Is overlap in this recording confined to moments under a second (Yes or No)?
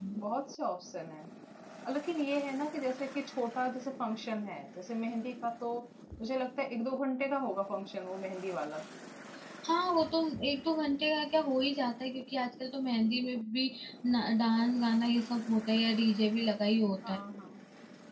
Yes